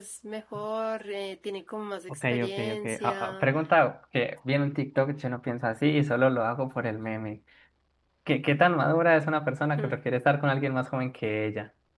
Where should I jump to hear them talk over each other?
2 s

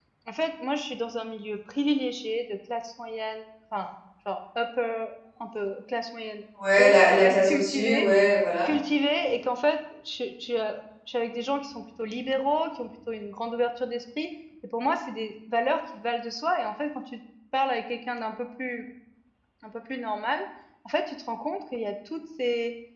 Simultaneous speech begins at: 7 s

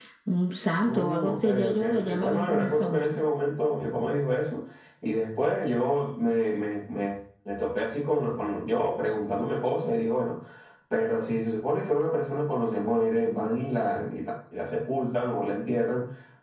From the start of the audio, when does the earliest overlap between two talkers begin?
1 s

